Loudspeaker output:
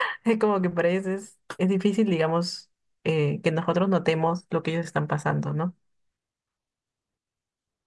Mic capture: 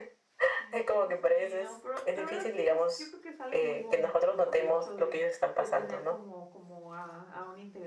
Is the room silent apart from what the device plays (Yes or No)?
No